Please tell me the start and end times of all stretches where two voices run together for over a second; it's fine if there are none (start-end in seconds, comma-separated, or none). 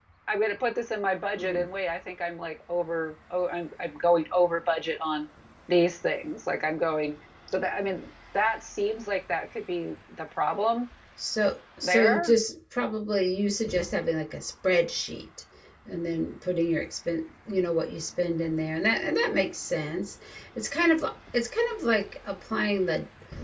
none